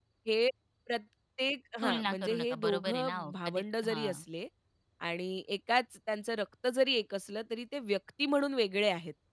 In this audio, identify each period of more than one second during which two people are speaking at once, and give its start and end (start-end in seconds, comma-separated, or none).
1.8-4.2